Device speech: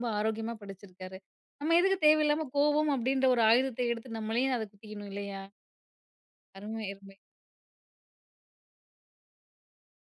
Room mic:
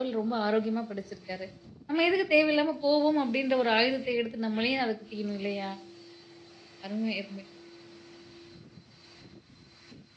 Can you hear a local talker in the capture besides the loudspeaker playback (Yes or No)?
No